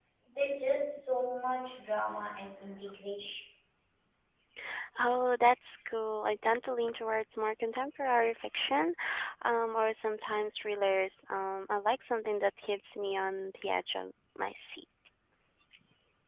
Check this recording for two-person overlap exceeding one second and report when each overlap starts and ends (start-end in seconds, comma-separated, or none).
none